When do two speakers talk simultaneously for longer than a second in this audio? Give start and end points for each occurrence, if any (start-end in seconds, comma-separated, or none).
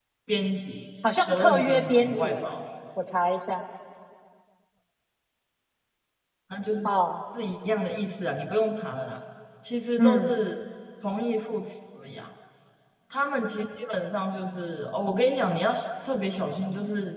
1.2-2.6